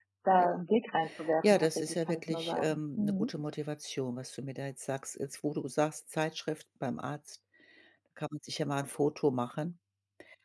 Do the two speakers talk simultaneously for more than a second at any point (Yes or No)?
Yes